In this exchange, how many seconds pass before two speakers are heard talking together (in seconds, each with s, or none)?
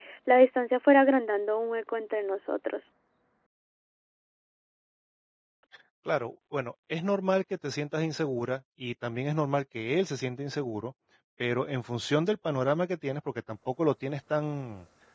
none